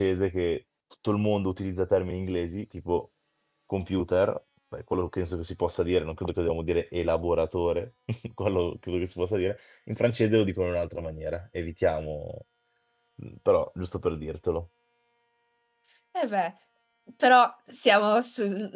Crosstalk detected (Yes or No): No